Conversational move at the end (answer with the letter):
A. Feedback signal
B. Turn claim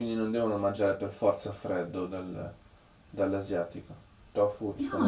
B